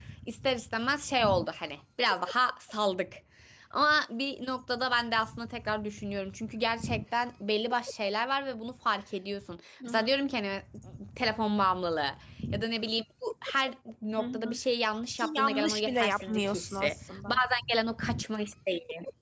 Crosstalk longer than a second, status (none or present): present